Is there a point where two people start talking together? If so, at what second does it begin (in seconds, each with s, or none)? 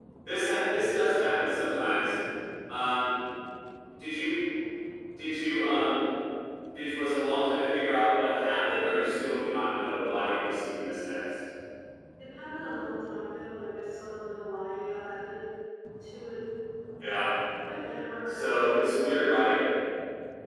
18.3 s